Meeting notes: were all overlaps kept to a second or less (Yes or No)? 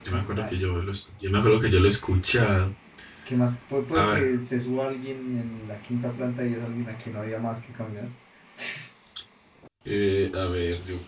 Yes